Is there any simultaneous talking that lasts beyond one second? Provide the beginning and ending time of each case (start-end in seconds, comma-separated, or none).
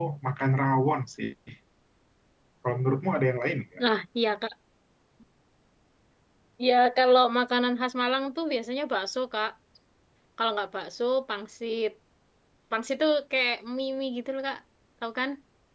none